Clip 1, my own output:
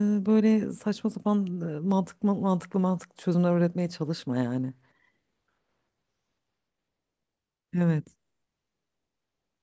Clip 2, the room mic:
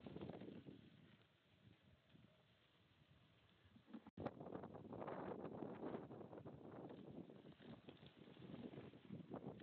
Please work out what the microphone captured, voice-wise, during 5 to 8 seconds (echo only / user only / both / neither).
neither